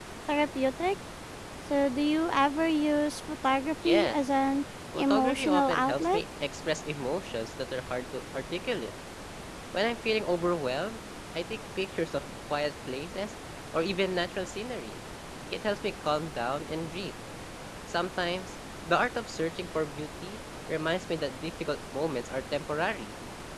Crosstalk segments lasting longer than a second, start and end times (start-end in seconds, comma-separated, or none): 5.0-6.2